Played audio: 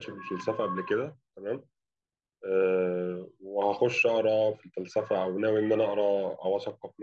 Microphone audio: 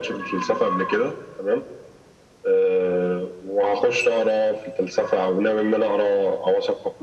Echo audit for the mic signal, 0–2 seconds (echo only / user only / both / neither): echo only